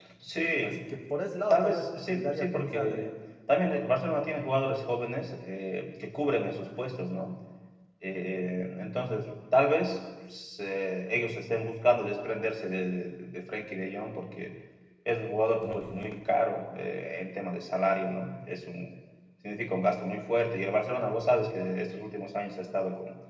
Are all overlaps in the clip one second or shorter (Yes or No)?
No